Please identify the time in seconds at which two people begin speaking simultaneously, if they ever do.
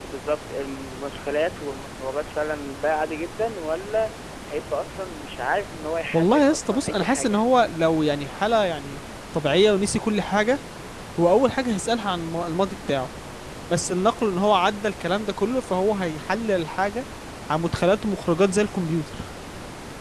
6.1 s

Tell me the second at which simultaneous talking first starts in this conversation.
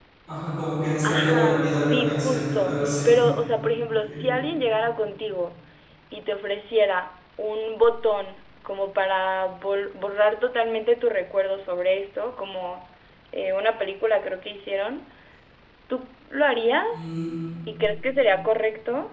1.0 s

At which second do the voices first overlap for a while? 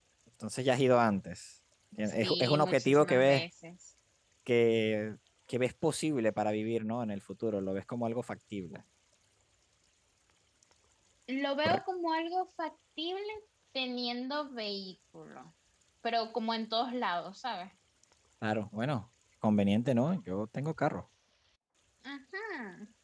2.0 s

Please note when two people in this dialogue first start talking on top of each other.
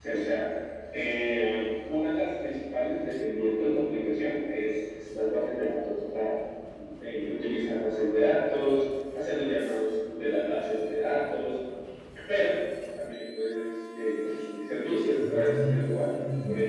15.2 s

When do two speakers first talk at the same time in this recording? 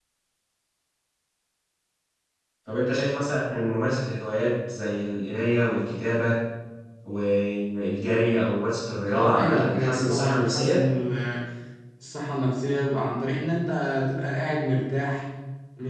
9.1 s

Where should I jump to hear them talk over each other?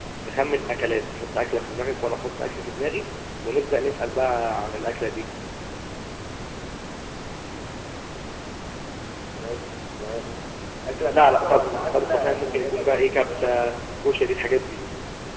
11.1 s

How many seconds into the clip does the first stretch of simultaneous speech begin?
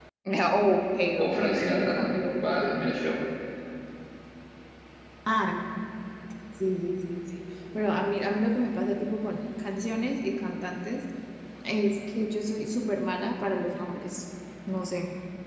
1.2 s

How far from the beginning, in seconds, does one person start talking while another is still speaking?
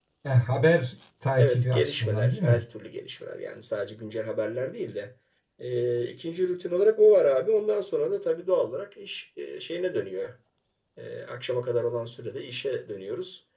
1.4 s

